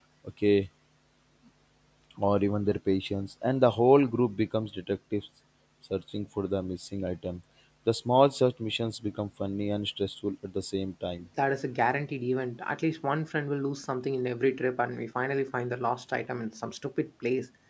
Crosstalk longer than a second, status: none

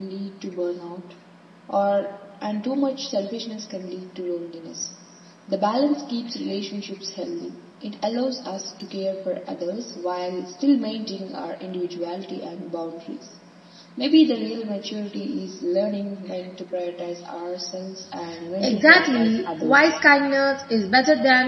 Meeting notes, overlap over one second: present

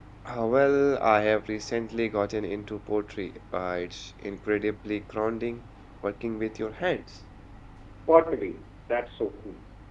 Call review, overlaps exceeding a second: none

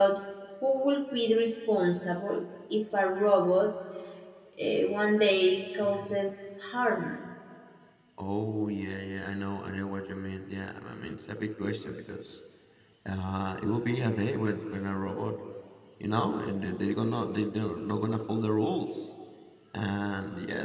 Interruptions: none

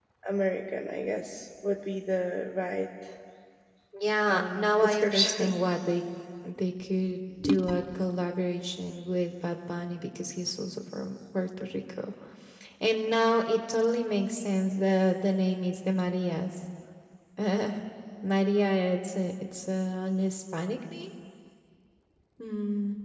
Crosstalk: present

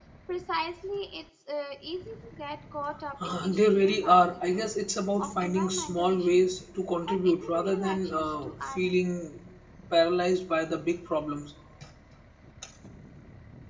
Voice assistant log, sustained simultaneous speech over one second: present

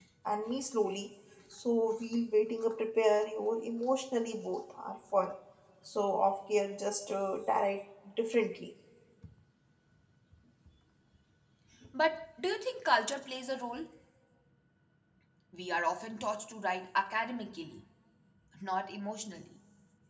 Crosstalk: none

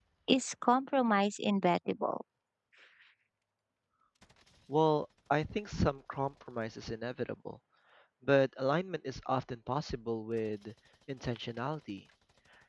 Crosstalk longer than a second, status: none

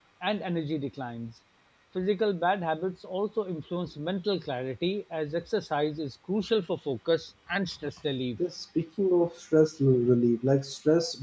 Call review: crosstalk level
none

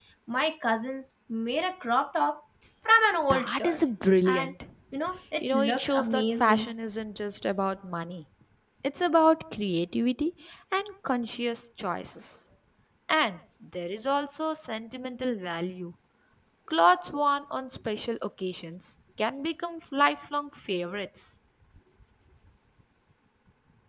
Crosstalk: present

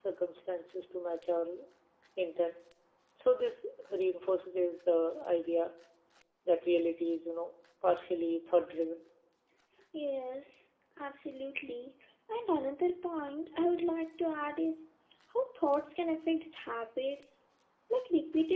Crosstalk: none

